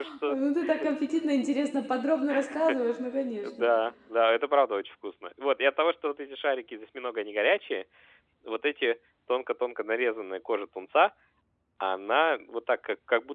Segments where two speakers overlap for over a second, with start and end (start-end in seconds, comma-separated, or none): none